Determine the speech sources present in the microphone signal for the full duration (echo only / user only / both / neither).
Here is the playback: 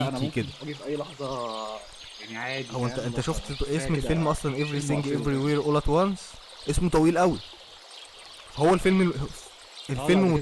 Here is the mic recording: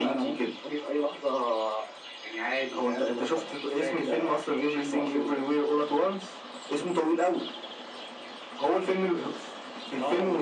echo only